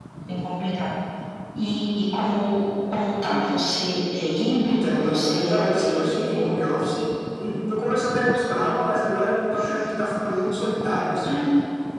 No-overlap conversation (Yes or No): No